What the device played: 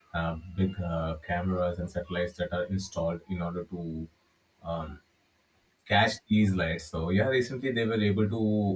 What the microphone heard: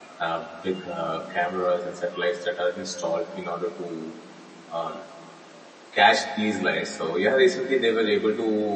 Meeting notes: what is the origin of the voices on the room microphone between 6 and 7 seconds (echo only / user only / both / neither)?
echo only